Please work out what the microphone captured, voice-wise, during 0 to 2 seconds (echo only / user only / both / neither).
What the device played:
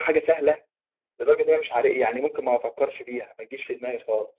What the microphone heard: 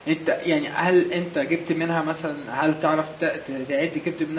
user only